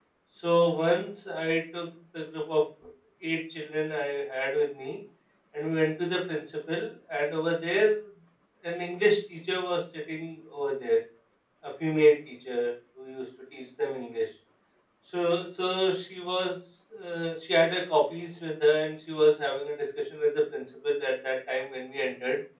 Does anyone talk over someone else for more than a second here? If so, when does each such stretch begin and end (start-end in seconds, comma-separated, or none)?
none